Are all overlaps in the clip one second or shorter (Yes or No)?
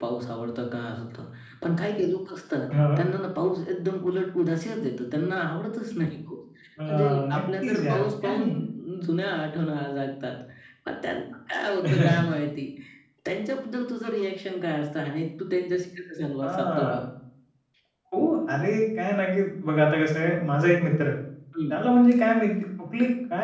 No